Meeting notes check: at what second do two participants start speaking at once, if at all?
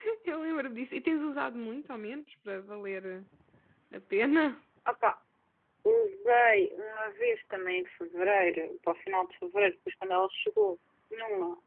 none

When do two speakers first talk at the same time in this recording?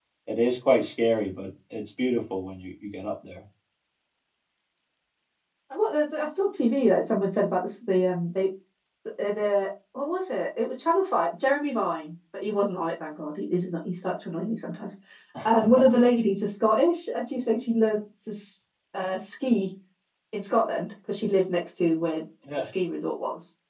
none

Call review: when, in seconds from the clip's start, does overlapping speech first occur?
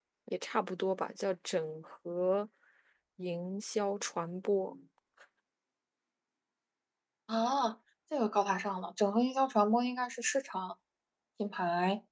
none

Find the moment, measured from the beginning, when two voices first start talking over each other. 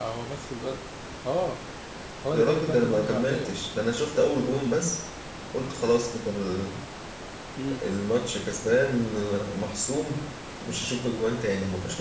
2.3 s

